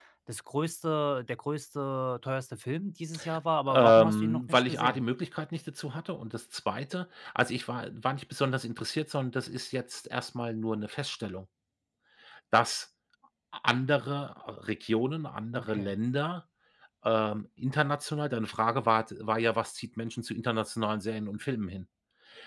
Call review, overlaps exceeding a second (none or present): present